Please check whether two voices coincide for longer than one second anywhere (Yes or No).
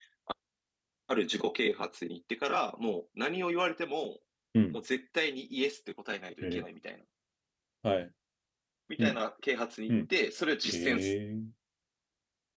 No